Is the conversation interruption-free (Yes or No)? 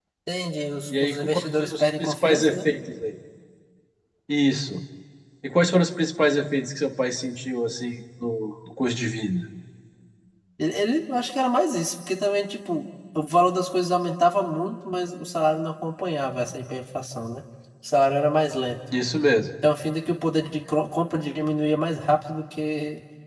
No